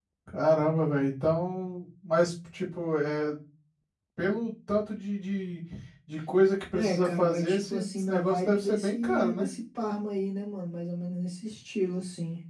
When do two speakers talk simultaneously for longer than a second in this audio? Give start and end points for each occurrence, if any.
6.7-9.5

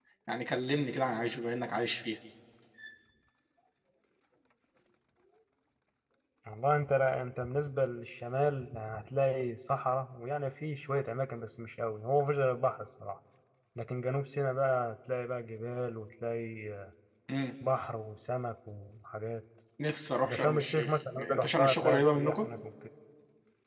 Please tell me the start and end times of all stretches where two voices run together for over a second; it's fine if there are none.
20.2-22.5

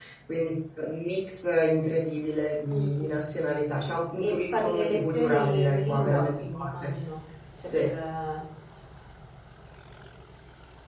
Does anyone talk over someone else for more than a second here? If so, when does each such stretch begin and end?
4.2-6.9

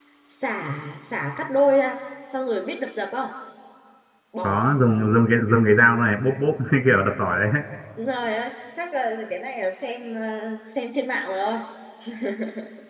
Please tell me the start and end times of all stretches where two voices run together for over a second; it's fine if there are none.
none

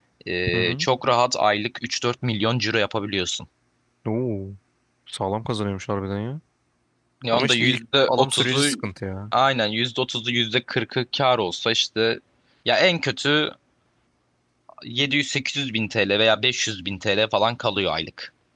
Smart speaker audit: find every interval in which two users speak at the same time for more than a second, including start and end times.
7.3-8.7

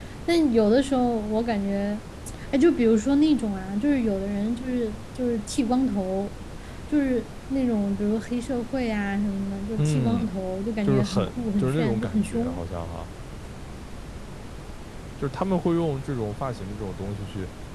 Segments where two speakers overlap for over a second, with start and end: 10.8-12.6

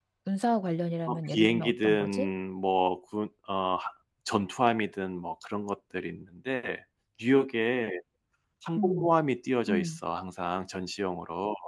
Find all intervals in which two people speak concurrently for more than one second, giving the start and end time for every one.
1.1-2.3

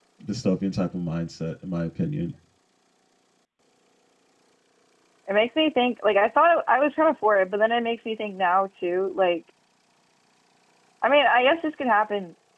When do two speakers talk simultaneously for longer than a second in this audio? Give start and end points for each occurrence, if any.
none

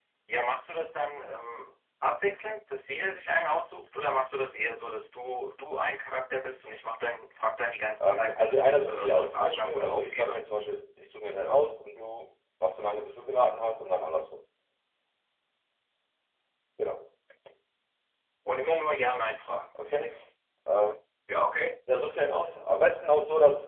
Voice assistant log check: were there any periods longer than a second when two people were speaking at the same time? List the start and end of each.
8.0-10.4

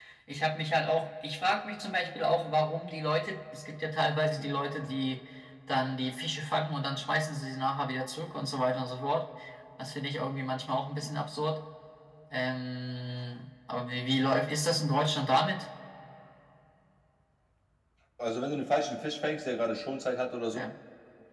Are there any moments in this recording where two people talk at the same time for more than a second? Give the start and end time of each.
none

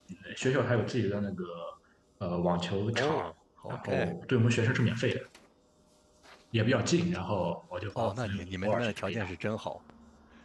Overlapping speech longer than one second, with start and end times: 8.0-9.2

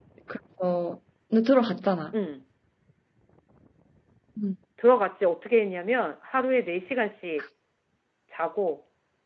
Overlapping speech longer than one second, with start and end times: none

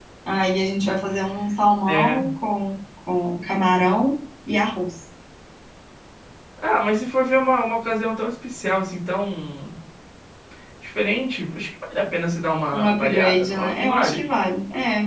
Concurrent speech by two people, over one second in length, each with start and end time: 12.7-14.2

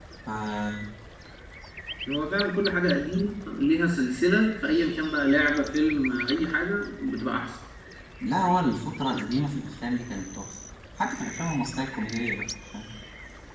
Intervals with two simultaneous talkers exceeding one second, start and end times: none

